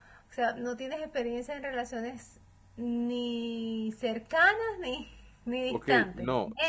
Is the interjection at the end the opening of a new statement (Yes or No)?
Yes